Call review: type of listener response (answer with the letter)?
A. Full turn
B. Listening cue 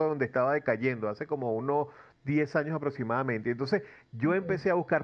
B